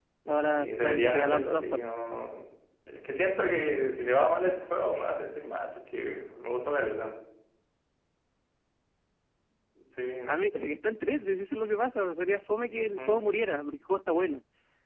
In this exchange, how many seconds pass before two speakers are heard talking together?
0.5 s

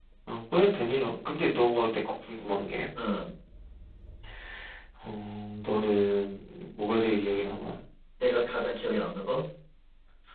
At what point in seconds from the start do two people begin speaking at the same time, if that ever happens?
none

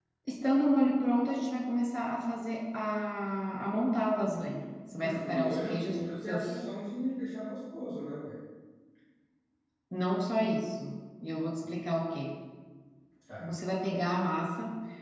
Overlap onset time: 5.0 s

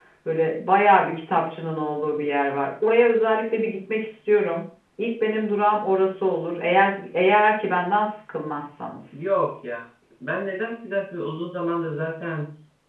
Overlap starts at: none

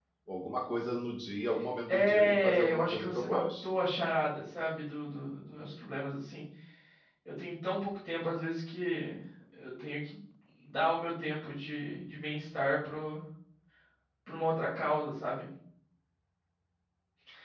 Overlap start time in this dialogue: 1.9 s

